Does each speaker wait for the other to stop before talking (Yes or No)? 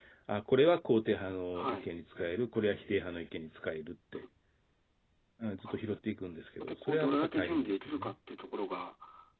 No